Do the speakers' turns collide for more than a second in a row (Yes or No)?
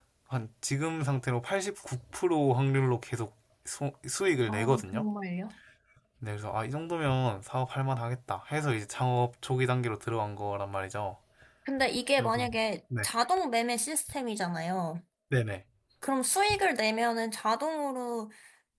No